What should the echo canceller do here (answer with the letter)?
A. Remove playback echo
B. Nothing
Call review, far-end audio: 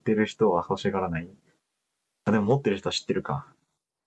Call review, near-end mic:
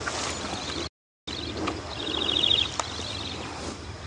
B